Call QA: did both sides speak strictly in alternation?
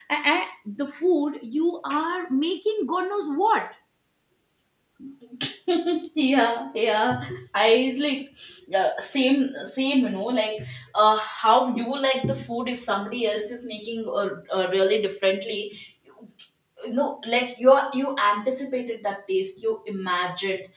Yes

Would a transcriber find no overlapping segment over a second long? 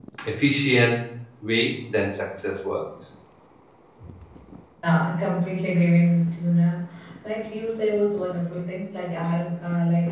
Yes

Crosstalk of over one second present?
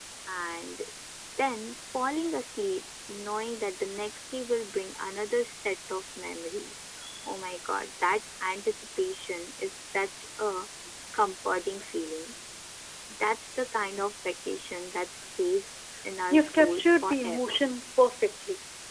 Yes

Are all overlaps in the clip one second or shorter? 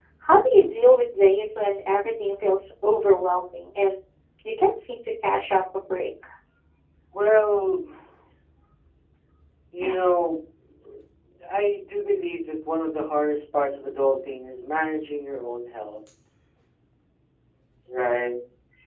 Yes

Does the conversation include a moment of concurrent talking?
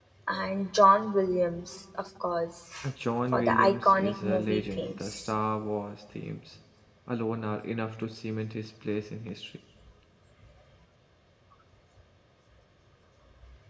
Yes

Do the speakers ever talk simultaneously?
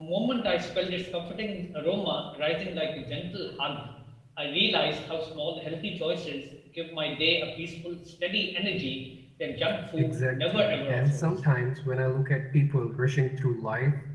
Yes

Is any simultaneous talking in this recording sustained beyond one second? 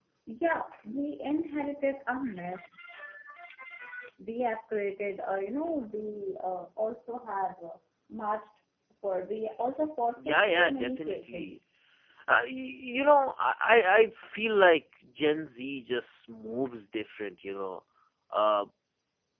Yes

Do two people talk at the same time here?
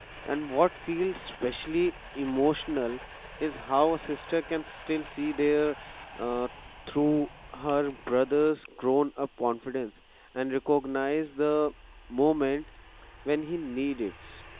No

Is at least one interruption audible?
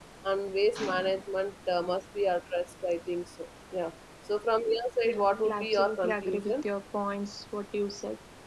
Yes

